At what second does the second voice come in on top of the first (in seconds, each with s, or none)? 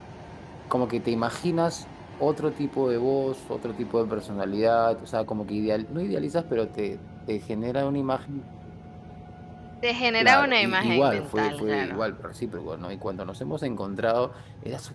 10.2 s